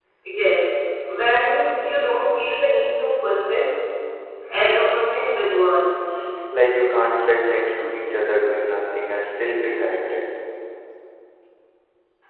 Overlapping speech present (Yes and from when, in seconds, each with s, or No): No